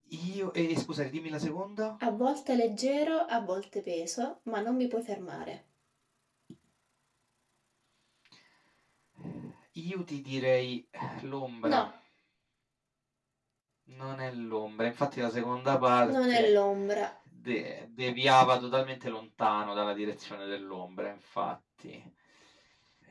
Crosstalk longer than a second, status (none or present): none